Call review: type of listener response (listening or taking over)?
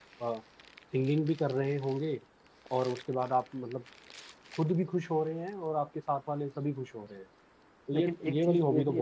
taking over